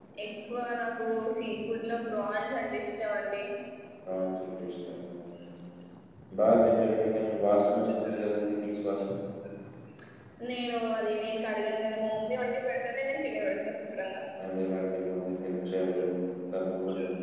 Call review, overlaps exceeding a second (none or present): none